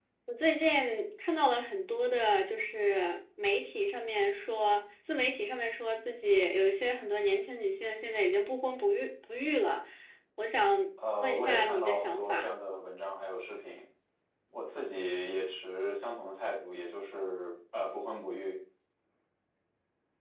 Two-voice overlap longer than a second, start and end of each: 11.2-12.5

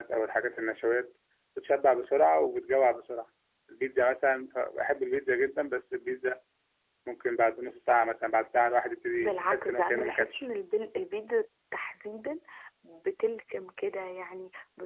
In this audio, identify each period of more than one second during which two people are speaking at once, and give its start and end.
9.2-10.4

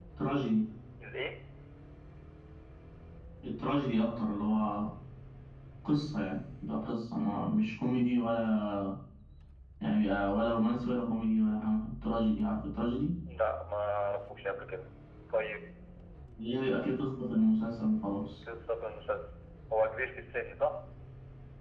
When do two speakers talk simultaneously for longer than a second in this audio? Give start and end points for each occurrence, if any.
none

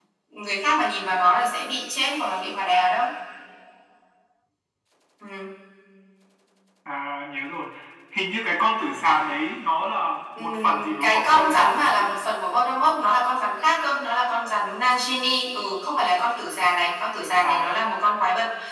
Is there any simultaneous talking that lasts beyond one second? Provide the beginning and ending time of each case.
10.4-12.1

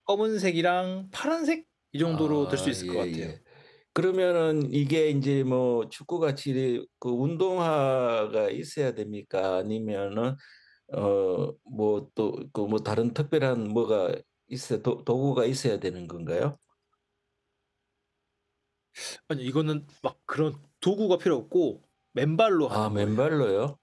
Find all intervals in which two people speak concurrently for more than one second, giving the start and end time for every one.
2.0-3.3

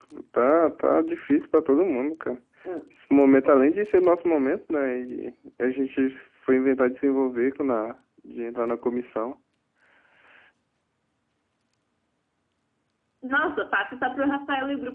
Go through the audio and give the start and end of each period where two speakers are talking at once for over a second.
none

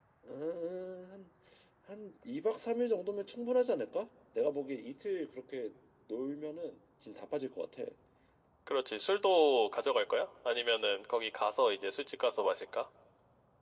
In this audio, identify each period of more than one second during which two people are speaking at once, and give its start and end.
none

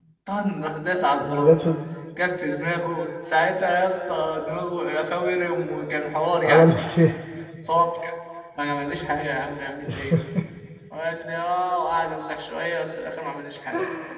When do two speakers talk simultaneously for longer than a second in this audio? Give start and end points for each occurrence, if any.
none

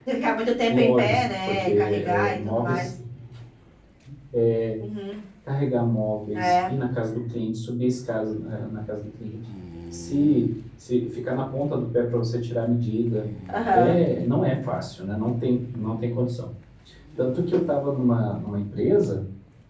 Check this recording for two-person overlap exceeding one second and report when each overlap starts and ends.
0.7-2.9

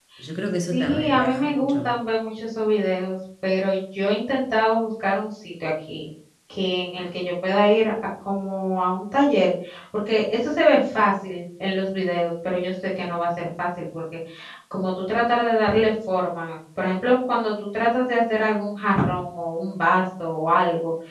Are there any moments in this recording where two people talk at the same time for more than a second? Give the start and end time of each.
0.7-2.0

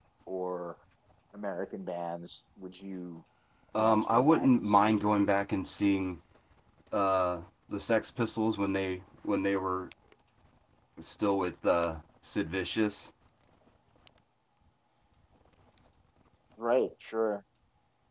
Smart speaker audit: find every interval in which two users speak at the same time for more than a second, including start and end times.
3.8-5.0

